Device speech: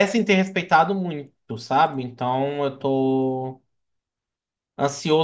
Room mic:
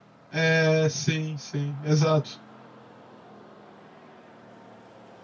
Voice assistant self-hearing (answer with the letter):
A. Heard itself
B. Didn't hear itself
B